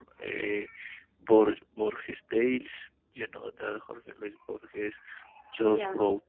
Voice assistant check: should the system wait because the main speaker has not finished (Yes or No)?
Yes